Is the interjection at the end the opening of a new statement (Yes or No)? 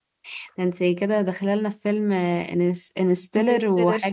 No